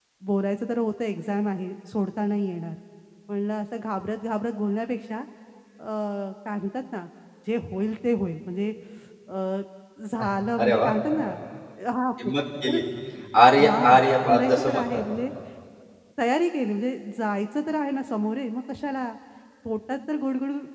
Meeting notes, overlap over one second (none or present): present